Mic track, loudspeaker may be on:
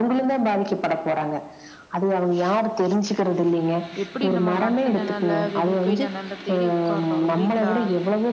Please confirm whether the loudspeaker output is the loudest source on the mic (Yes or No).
Yes